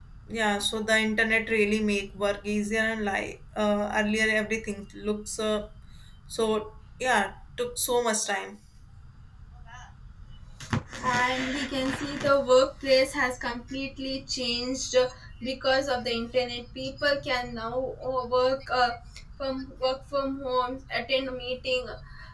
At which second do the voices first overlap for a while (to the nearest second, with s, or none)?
none